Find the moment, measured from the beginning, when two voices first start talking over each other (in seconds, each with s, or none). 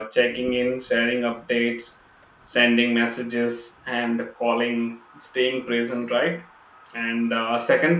none